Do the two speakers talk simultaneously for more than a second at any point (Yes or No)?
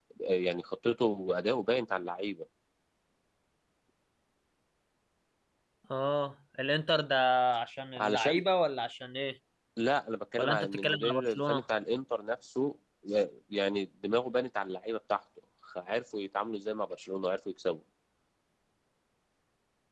Yes